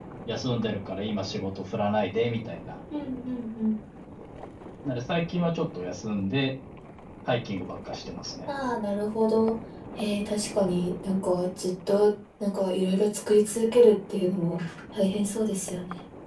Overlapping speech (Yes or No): No